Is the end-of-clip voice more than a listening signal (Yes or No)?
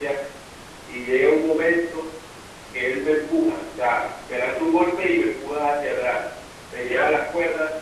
No